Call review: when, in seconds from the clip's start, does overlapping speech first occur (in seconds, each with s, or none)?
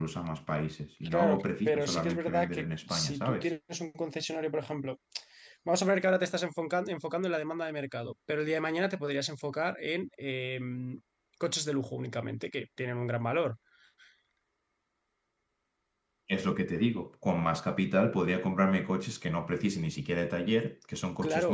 1.1 s